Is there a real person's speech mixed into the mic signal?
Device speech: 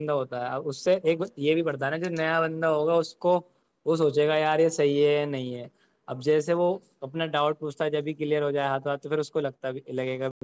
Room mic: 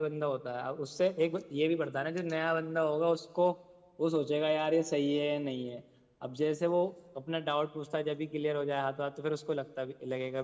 No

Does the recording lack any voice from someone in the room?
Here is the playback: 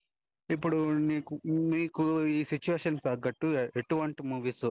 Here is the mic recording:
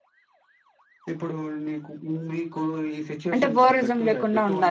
No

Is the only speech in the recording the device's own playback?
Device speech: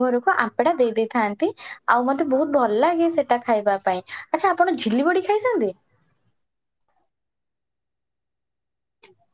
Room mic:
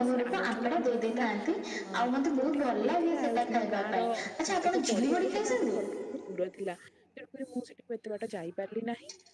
No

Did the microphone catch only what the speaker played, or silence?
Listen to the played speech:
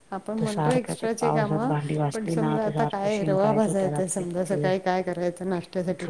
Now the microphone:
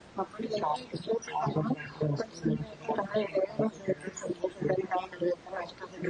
Yes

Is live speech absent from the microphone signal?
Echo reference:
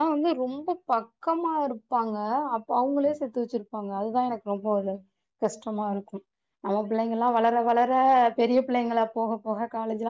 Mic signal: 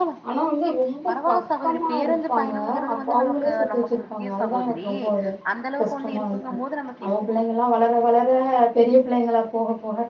No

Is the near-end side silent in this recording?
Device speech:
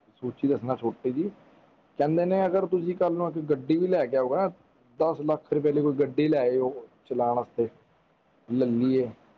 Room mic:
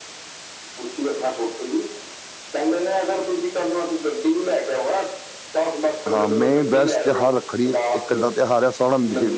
No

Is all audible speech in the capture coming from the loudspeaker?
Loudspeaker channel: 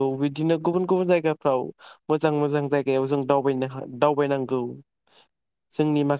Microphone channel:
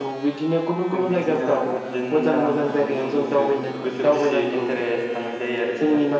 No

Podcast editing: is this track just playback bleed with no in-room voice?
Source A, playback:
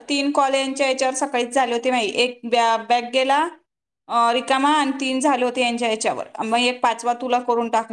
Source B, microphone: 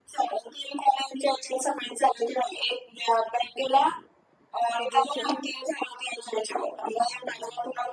No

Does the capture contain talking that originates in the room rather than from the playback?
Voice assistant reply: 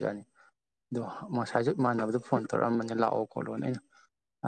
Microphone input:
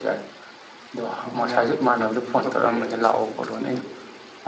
Yes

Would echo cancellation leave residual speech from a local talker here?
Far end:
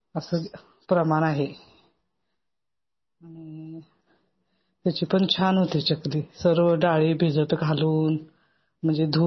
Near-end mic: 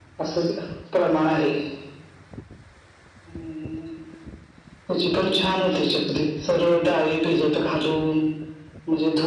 No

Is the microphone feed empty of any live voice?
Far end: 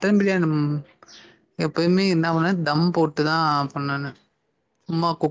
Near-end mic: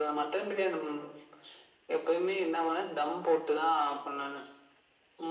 Yes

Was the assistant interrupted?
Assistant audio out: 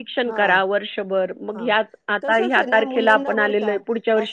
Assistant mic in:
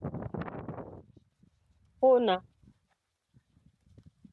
Yes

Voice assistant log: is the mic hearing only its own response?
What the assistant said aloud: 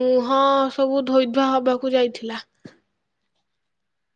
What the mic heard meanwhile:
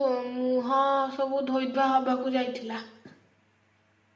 Yes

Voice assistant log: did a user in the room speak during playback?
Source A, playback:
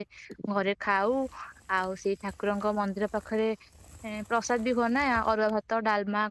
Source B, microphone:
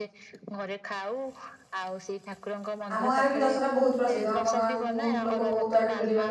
Yes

